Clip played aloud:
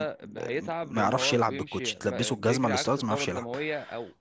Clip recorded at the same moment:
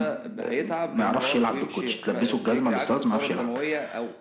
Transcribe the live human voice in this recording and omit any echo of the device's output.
none

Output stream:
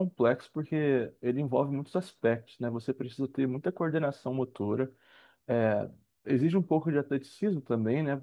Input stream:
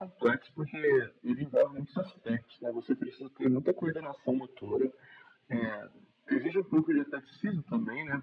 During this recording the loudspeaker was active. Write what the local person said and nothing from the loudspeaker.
none

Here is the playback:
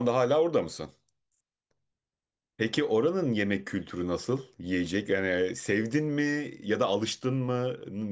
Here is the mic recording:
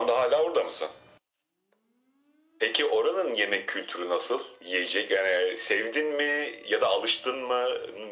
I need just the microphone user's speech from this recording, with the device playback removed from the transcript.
none

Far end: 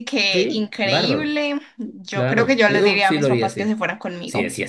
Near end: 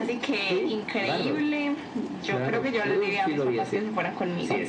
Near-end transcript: none

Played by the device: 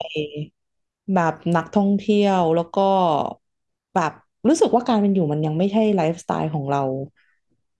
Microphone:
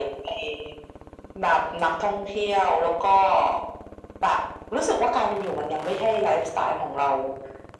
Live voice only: none

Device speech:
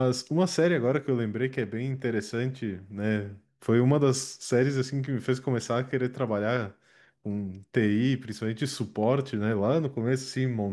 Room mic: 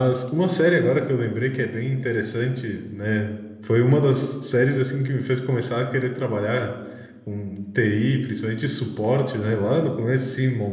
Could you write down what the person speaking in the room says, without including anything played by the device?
none

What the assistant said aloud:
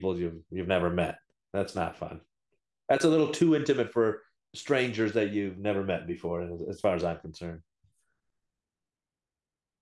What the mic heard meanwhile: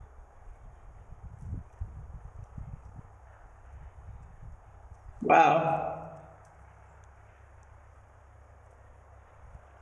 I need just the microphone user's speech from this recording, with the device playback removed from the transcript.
Wow.

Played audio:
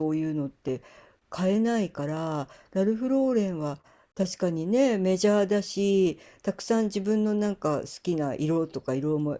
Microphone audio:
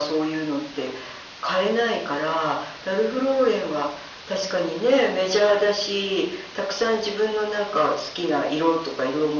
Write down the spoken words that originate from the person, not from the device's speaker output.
none

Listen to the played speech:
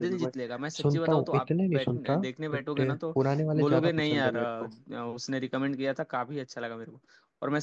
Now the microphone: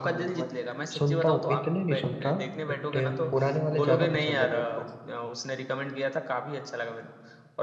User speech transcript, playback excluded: none

